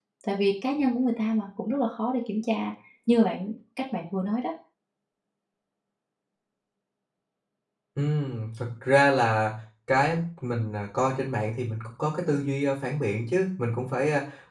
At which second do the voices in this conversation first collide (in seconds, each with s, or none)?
none